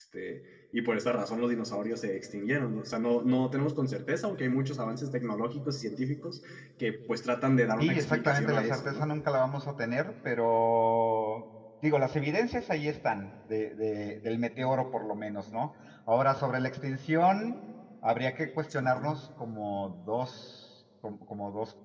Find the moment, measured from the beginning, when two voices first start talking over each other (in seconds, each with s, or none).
7.8 s